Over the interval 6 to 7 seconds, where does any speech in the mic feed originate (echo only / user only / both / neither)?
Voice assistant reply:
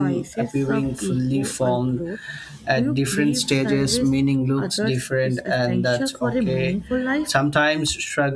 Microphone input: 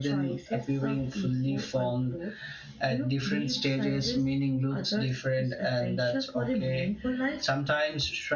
echo only